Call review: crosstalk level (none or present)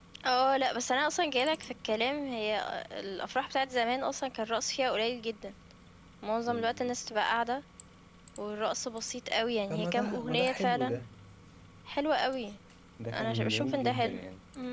present